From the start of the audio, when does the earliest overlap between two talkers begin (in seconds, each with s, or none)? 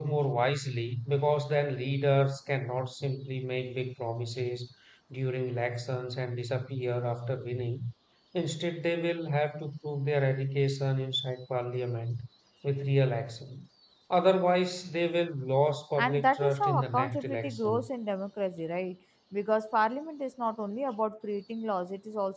15.9 s